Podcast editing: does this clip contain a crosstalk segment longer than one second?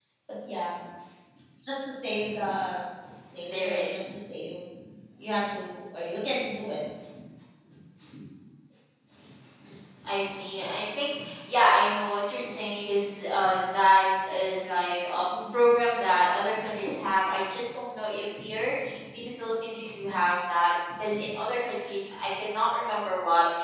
No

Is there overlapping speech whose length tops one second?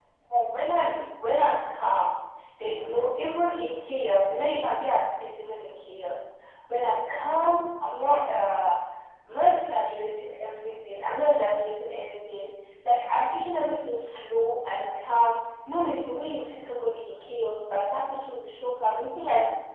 No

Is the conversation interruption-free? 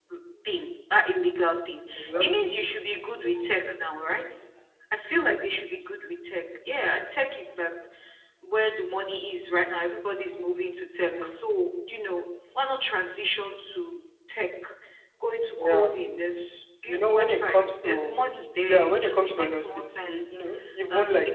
No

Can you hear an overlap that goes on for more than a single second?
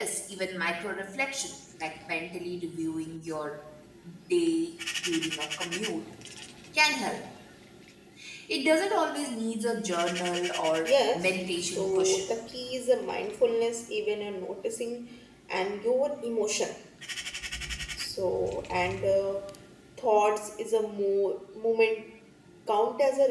Yes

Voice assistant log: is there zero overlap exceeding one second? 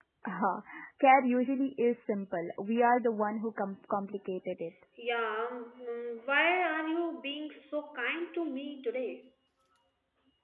Yes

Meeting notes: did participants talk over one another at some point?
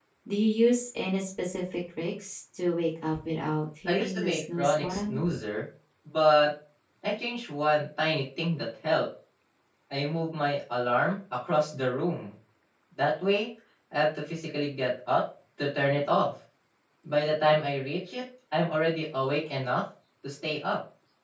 Yes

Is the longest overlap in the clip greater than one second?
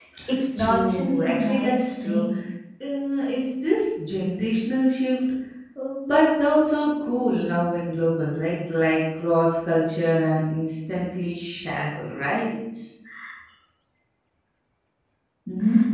Yes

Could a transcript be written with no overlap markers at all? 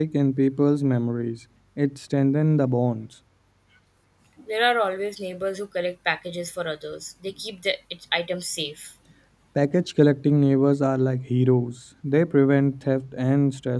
Yes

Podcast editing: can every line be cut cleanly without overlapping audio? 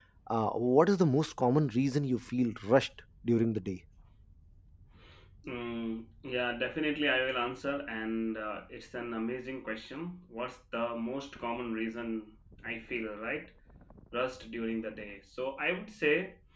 Yes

